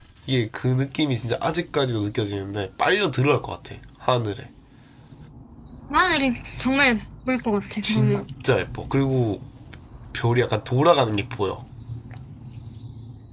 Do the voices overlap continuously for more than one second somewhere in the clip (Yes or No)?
No